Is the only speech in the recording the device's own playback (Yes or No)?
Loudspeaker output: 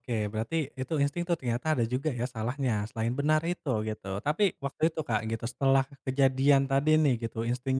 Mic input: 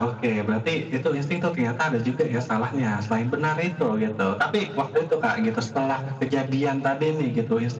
Yes